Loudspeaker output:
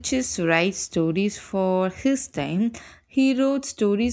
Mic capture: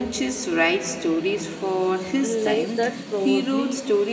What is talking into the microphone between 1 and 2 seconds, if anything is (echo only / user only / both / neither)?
echo only